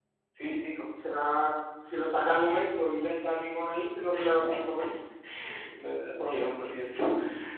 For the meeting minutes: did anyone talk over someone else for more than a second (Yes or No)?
No